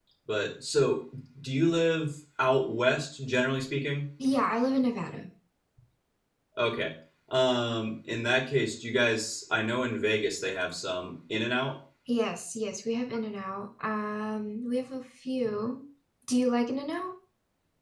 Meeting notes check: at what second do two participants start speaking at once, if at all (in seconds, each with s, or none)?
none